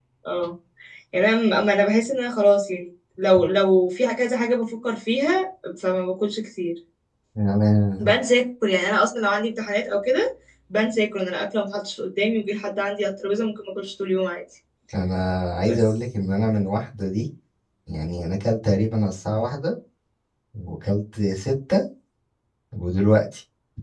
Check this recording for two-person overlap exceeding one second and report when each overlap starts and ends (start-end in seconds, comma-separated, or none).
none